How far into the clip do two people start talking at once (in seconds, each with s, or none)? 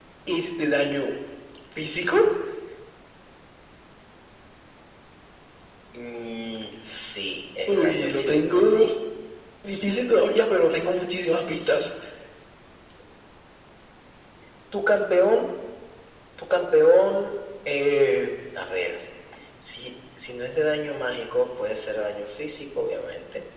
7.7 s